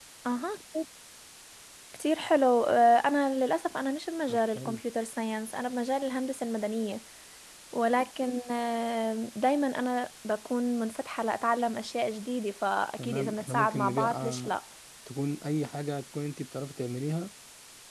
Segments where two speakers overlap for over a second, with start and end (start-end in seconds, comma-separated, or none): 13.0-14.6